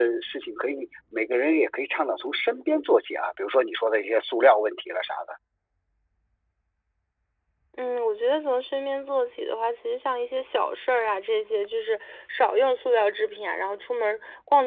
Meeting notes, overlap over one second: none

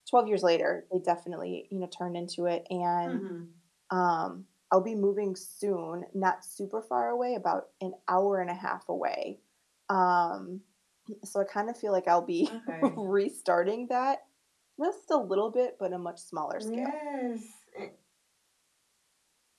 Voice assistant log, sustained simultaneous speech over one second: none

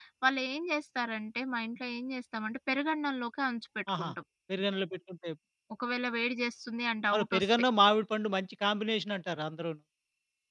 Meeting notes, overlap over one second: none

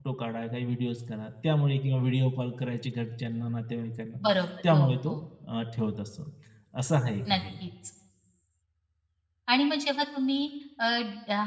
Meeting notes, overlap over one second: none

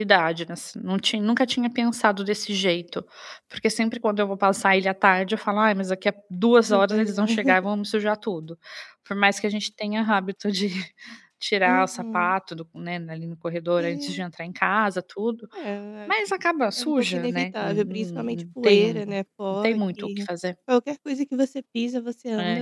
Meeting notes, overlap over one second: present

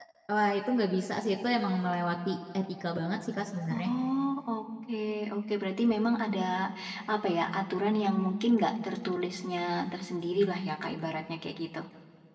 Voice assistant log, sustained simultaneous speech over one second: none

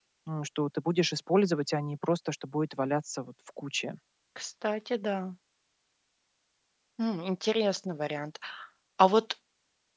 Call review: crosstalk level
none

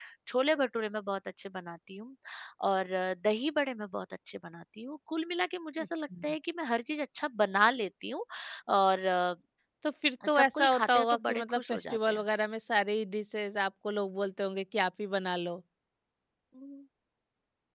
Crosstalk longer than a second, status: present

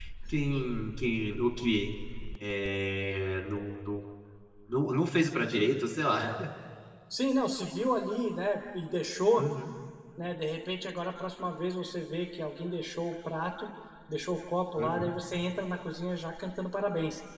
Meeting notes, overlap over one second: none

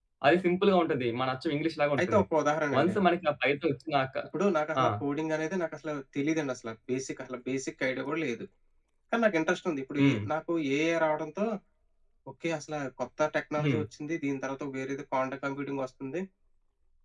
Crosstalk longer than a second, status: none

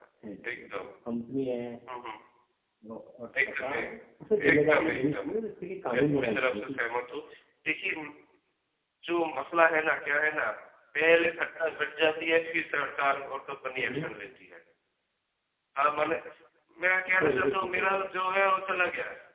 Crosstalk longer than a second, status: present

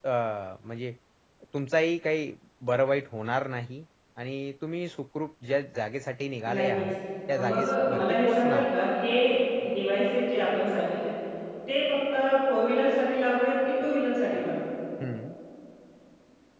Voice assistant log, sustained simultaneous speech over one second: present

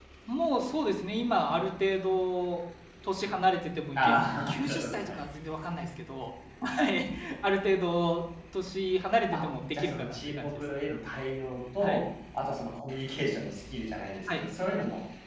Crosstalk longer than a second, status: present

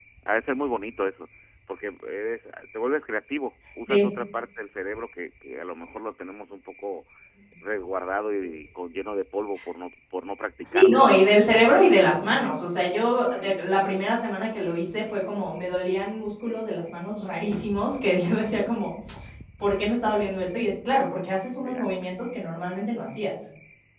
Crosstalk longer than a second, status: none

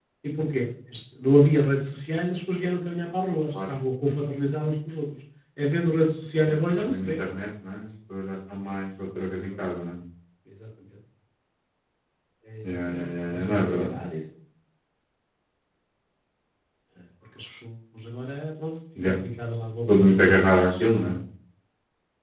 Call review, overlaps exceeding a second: present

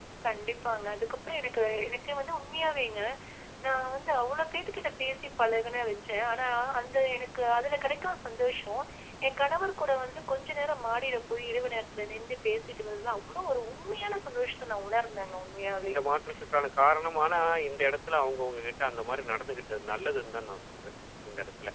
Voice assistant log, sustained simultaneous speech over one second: none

